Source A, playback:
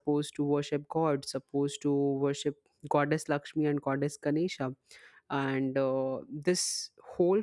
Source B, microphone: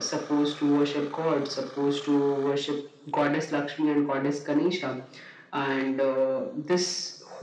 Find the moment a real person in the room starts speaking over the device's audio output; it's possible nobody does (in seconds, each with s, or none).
none